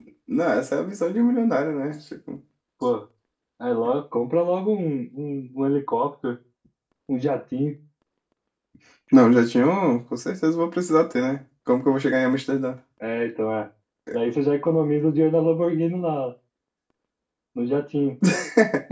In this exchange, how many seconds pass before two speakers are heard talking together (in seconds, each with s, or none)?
none